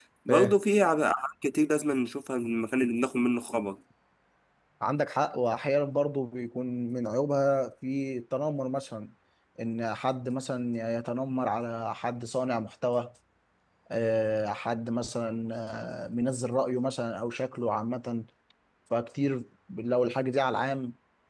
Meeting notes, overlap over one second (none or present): none